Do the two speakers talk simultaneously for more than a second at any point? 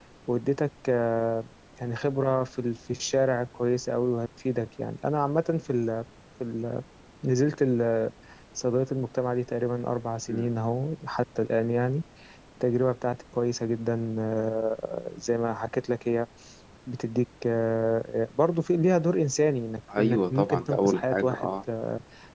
Yes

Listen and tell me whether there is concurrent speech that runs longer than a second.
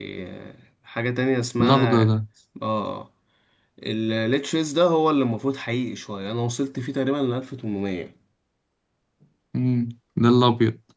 No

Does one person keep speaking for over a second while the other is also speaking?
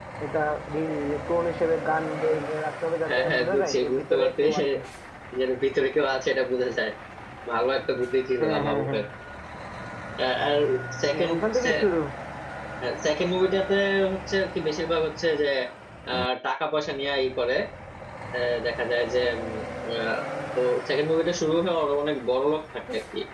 Yes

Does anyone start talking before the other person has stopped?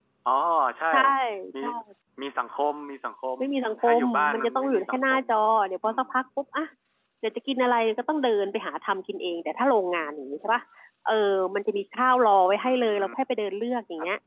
Yes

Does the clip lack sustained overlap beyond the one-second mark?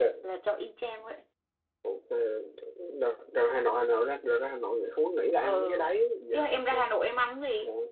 Yes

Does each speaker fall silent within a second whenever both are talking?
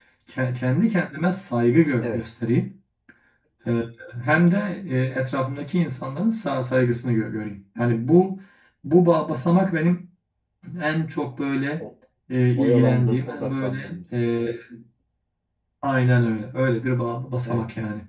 No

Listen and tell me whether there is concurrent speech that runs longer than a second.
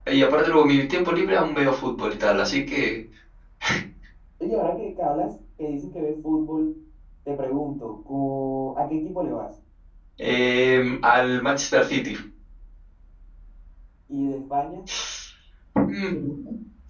No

